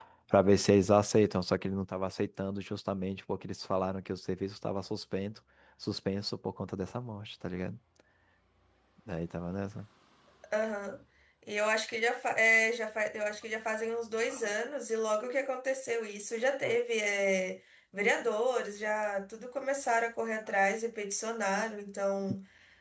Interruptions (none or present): none